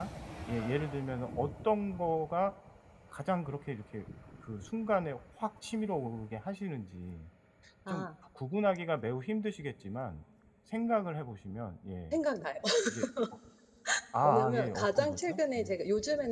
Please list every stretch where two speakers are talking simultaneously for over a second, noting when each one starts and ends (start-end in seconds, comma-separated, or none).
14.2-15.6